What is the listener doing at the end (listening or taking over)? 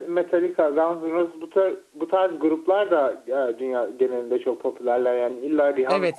taking over